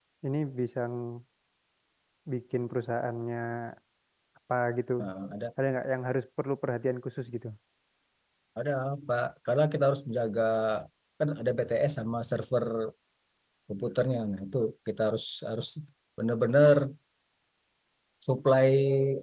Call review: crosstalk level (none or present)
none